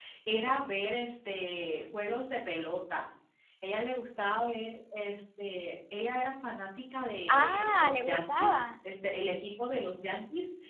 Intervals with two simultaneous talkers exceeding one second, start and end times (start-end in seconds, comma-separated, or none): 7.3-8.7